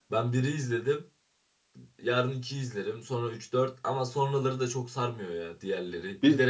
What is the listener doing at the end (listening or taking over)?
taking over